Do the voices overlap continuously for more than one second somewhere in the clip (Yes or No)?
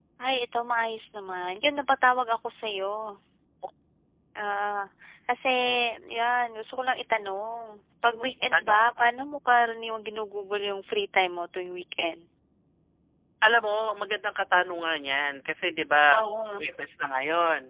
No